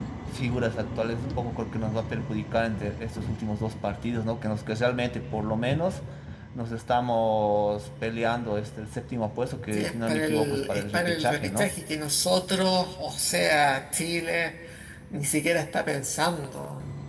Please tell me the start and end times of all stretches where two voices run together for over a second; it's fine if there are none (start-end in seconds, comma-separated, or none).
9.7-11.7